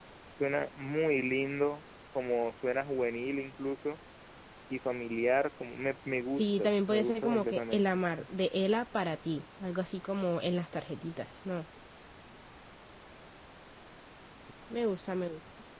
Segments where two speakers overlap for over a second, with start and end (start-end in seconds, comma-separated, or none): 6.4-8.0